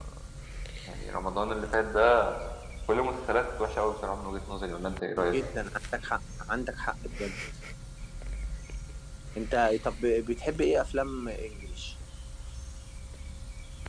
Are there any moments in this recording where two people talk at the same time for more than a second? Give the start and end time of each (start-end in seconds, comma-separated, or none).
none